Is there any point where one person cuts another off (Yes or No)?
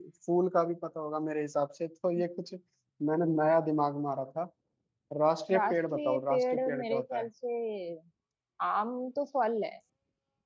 Yes